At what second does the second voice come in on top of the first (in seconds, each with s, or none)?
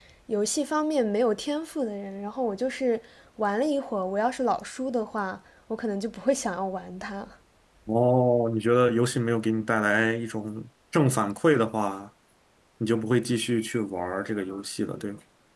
none